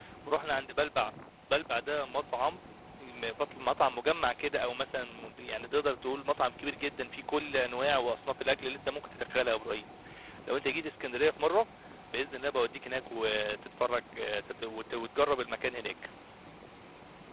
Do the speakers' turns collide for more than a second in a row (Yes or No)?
No